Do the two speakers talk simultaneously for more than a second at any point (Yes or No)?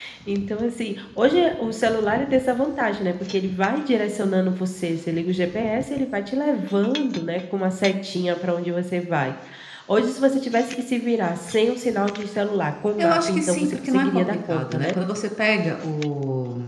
Yes